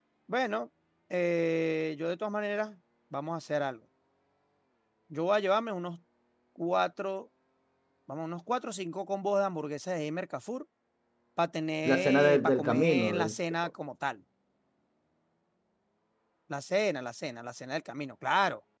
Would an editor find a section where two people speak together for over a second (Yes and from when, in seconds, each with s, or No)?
Yes, from 11.8 s